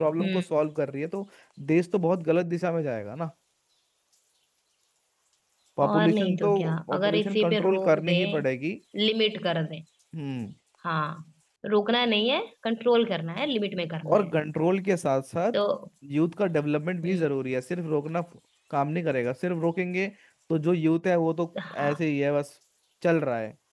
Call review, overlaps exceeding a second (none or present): present